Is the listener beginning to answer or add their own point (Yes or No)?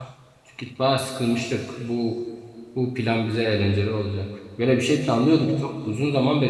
No